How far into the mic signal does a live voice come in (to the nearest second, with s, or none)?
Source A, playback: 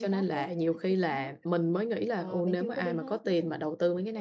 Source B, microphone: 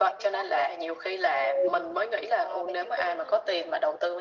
1 s